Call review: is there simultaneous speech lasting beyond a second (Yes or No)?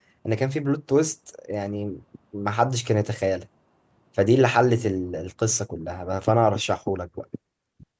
No